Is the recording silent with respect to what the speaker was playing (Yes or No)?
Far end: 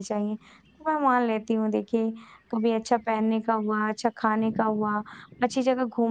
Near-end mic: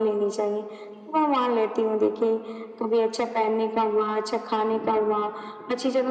No